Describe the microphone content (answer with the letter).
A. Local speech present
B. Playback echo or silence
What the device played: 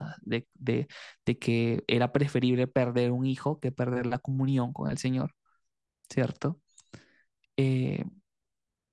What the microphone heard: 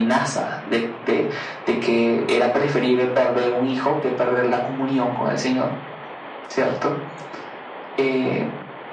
B